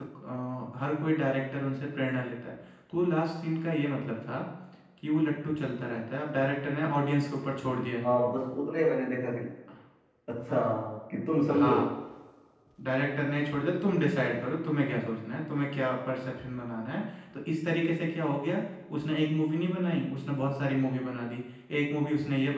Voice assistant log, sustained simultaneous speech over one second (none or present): none